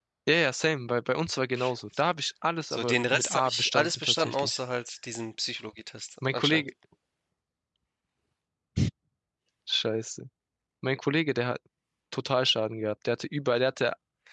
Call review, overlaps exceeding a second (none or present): present